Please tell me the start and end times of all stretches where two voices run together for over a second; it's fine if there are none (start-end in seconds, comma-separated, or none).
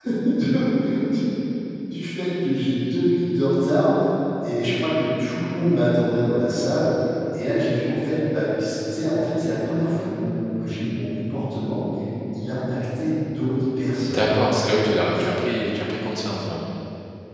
none